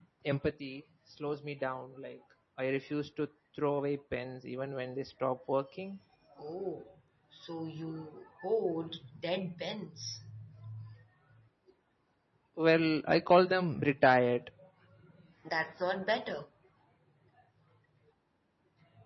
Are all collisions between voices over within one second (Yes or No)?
Yes